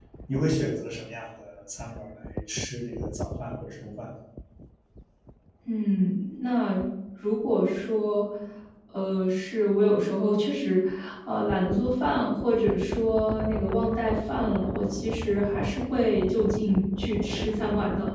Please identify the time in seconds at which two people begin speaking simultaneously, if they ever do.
none

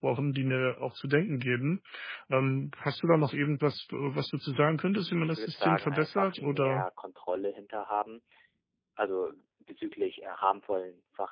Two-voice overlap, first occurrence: 5 s

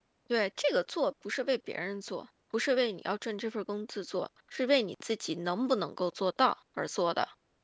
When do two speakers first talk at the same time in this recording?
none

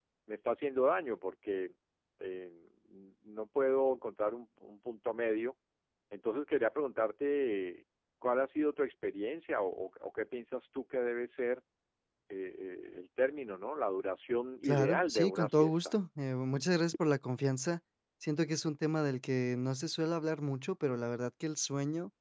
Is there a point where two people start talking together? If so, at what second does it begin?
15 s

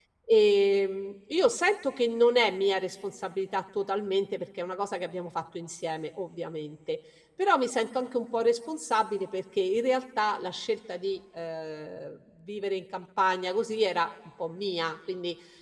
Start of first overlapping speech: none

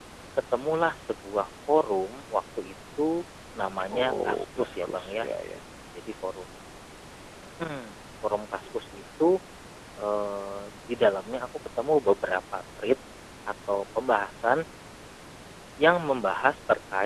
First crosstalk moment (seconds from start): 4 s

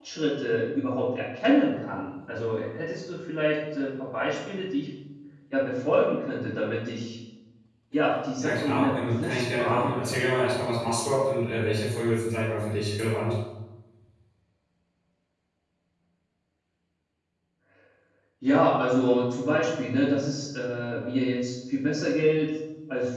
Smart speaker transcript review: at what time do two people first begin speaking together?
8 s

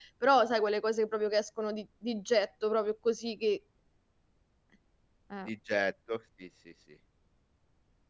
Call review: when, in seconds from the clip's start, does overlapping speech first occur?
none

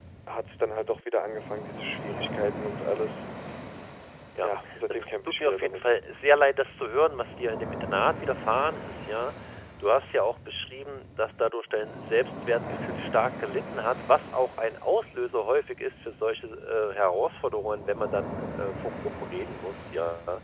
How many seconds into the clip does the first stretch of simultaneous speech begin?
4 s

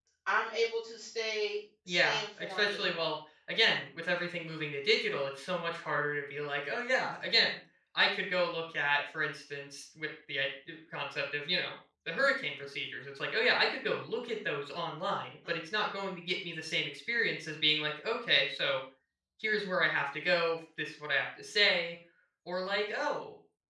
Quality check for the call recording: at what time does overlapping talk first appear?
2 s

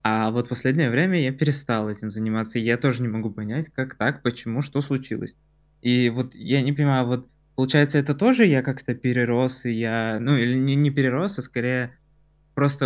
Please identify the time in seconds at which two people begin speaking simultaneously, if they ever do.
none

